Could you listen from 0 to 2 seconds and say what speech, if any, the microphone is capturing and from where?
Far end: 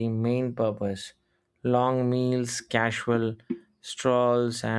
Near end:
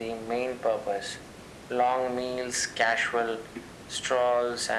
echo only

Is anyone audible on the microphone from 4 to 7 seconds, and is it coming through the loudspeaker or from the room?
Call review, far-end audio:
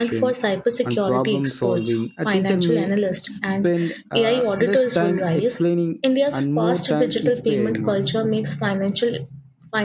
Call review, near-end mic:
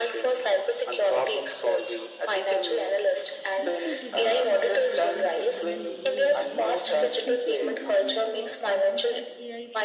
both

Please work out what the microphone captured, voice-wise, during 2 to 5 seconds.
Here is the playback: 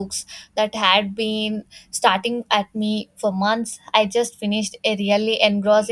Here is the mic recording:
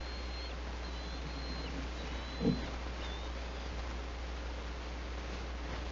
neither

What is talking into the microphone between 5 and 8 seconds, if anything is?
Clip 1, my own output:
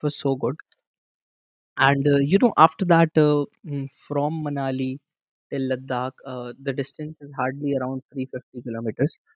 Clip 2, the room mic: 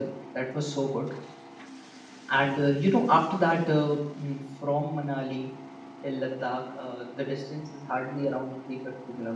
echo only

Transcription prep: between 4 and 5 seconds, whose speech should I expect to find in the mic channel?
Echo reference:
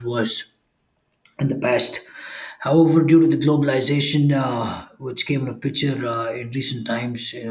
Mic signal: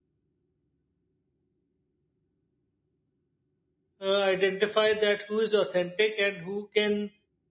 user only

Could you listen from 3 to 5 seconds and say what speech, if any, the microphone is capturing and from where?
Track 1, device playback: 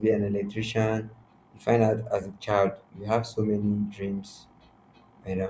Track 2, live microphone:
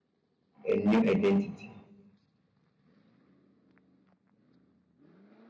neither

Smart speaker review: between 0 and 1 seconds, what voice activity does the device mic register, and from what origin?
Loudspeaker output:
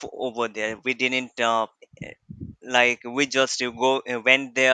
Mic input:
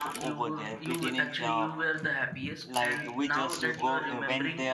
both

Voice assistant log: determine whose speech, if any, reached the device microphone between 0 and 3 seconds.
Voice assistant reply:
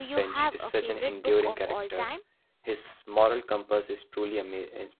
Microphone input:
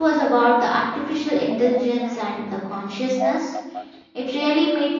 both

